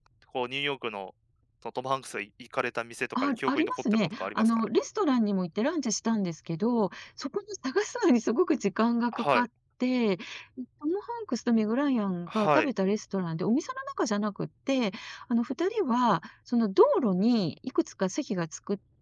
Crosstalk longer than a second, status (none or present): present